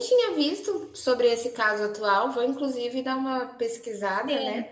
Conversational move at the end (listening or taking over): taking over